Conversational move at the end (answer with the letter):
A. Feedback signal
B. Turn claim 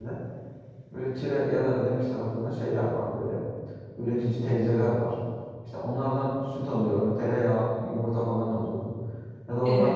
A